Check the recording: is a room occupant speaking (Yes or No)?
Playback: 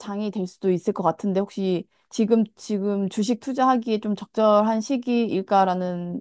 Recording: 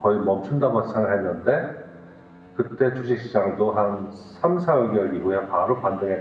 Yes